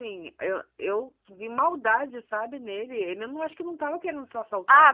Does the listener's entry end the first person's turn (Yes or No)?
Yes